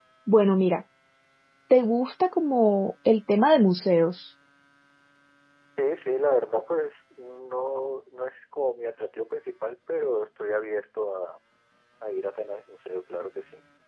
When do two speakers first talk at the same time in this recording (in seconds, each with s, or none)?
none